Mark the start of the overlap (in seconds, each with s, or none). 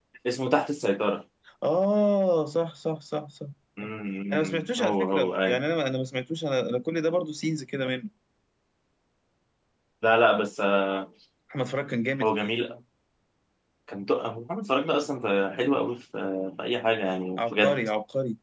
4.3 s